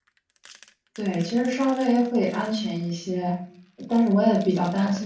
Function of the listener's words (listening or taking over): listening